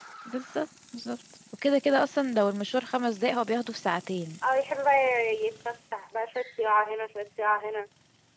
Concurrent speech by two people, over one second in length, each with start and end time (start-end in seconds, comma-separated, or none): none